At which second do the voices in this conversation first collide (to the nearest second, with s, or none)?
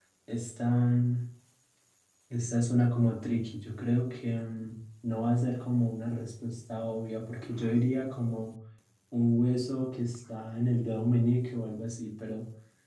none